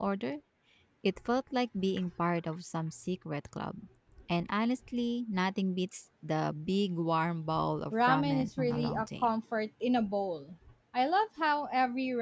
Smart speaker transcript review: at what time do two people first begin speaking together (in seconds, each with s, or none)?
7.9 s